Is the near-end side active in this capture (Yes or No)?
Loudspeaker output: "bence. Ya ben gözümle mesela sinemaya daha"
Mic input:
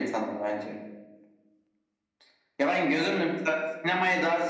No